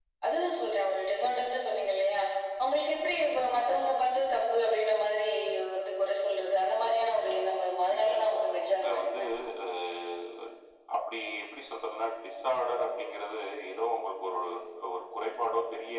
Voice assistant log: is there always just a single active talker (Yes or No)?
No